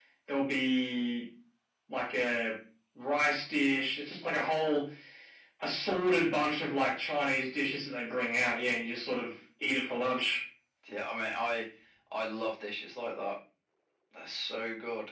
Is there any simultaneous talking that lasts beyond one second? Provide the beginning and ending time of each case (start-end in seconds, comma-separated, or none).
none